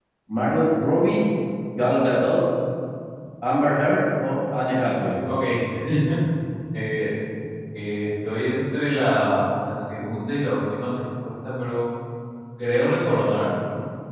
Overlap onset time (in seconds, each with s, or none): none